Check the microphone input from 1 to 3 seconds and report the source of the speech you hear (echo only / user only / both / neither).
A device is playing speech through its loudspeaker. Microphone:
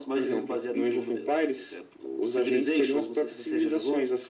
echo only